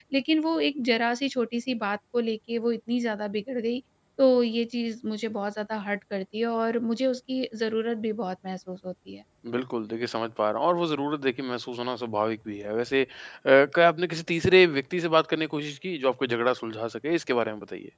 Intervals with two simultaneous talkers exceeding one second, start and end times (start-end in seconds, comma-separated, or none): none